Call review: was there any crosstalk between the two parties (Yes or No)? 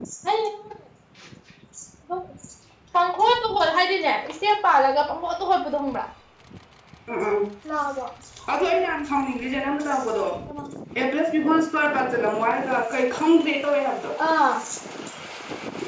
No